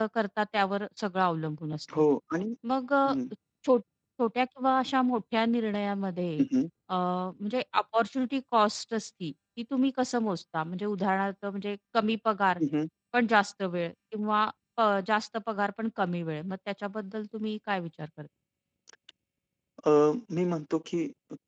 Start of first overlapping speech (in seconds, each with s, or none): none